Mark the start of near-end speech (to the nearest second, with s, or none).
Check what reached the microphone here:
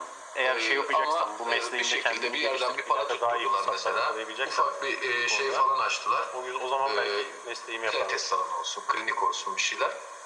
none